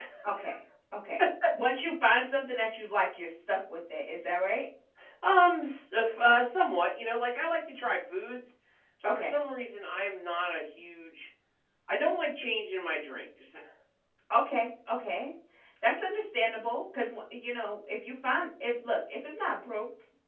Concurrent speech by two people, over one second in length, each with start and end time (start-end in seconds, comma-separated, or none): none